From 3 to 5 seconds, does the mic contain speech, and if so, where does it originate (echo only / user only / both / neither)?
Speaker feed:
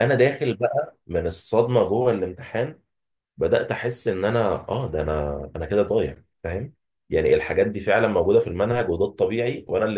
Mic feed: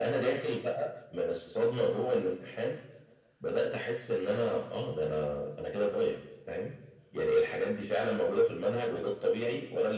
echo only